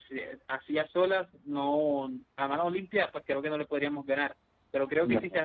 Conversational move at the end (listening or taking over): listening